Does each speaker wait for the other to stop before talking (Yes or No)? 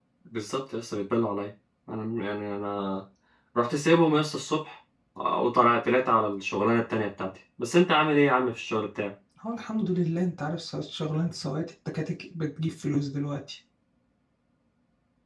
Yes